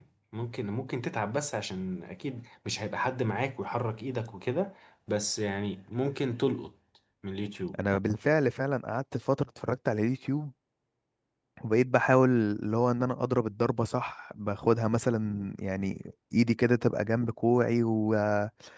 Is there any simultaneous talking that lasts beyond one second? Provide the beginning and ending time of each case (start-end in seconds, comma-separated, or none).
none